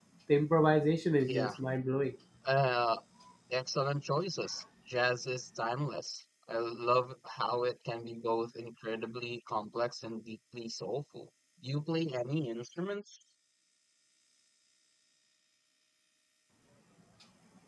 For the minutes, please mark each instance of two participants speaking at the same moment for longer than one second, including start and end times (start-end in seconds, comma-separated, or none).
none